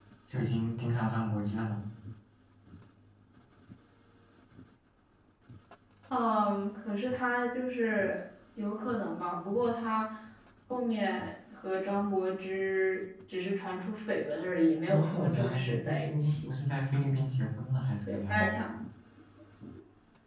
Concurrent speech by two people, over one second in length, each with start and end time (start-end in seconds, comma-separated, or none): 14.9-16.5